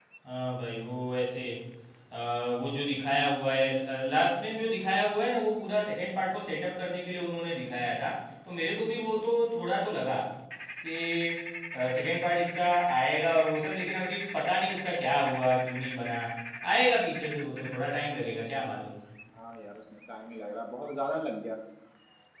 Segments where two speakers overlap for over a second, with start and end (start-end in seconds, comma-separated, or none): none